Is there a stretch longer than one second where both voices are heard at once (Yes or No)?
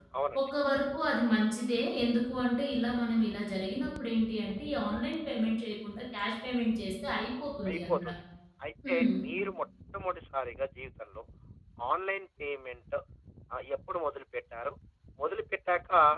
No